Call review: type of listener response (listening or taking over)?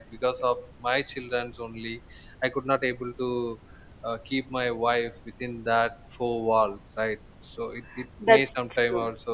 listening